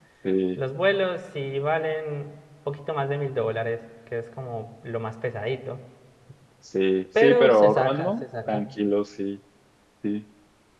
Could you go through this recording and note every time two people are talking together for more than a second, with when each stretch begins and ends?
7.2-8.6

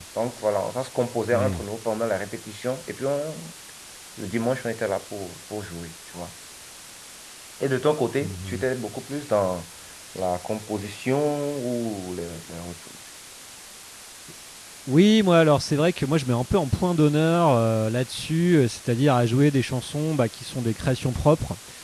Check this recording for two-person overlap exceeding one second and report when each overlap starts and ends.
none

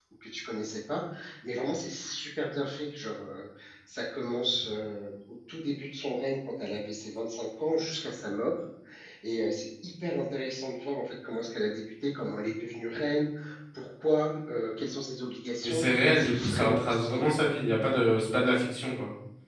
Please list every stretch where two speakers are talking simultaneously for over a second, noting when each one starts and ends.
15.6-17.2

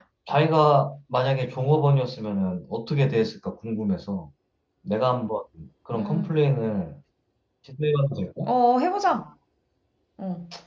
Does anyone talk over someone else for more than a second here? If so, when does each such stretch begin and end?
none

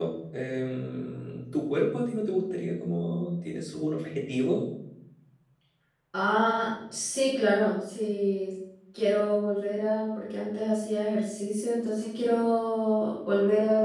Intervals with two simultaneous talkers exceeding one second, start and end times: none

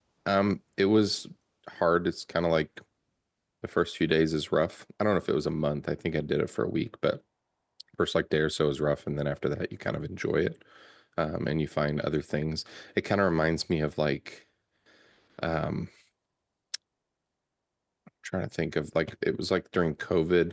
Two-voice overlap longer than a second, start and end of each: none

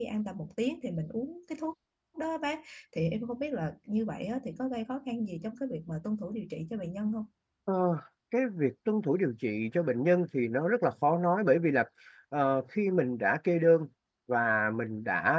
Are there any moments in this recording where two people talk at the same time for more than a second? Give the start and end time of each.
none

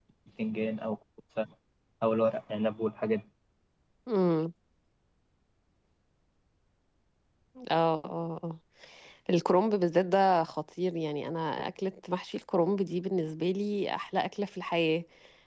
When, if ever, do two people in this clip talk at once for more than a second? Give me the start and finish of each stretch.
none

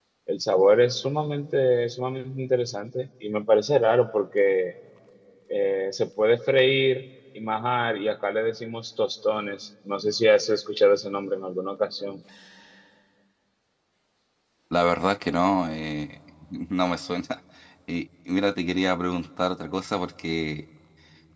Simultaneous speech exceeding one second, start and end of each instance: none

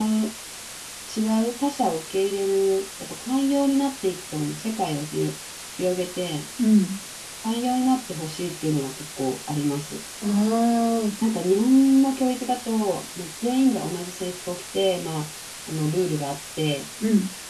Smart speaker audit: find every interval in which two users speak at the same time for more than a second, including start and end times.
none

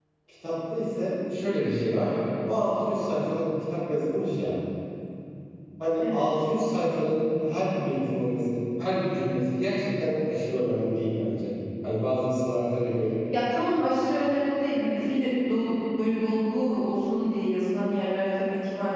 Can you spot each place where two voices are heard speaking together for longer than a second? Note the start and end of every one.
none

